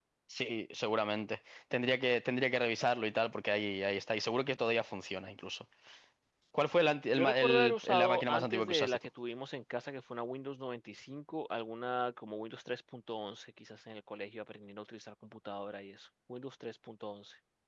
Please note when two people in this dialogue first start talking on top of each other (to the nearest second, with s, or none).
7 s